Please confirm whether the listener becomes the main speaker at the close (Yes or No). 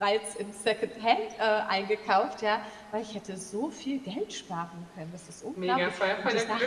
Yes